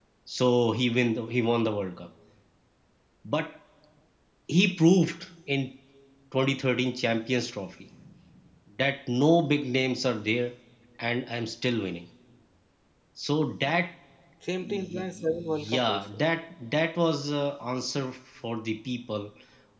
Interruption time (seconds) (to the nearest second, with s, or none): 15 s